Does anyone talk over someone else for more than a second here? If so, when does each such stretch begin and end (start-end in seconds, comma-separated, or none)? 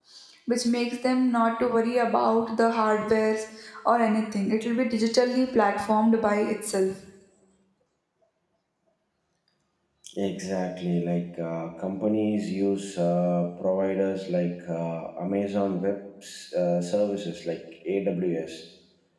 none